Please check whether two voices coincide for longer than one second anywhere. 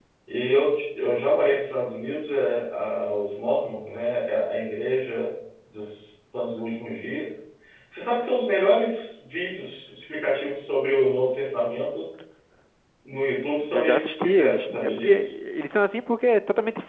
Yes, from 13.7 s

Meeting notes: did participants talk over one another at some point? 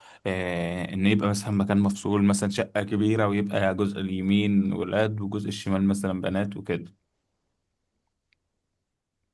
No

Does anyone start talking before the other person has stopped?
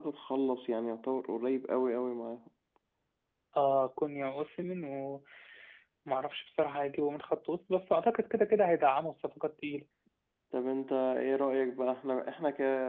No

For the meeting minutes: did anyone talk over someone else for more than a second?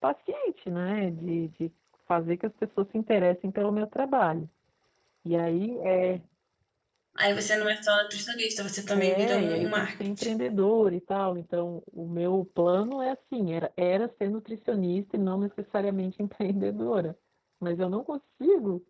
Yes, from 9.0 s

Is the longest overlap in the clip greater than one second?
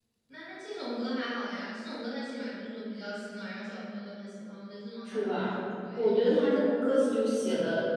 No

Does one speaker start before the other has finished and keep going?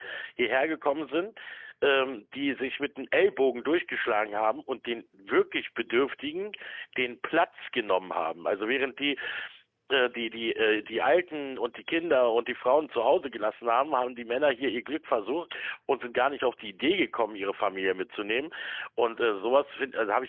No

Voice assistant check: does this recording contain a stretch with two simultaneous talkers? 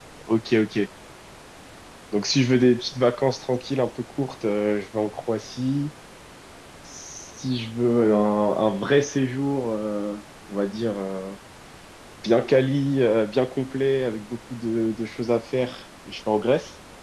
No

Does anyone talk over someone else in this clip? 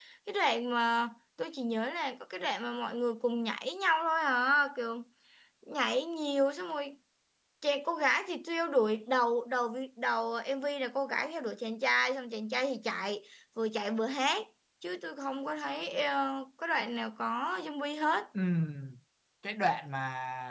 No

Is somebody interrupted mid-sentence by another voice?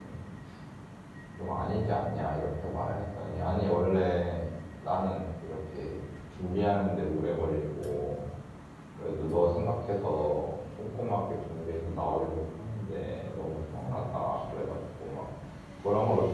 No

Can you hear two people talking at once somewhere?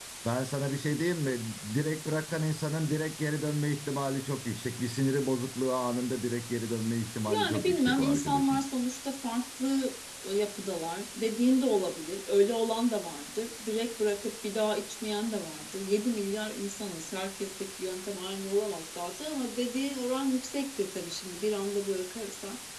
Yes, from 7.2 s

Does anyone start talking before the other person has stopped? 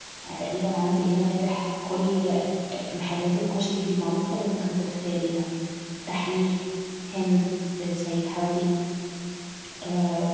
No

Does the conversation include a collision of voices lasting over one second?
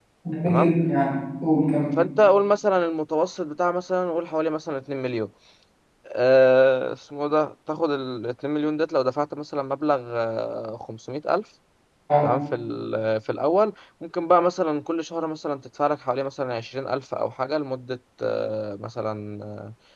No

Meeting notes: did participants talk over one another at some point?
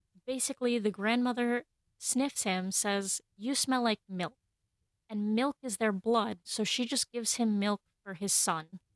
No

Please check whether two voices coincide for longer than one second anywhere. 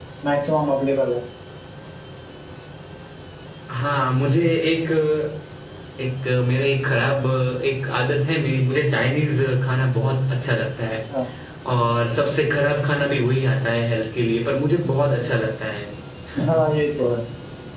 No

